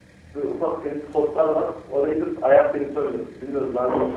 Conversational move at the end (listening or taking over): taking over